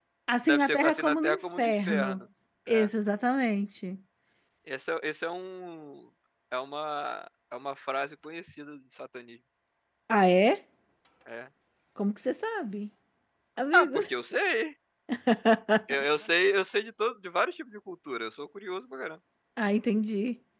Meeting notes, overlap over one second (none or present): present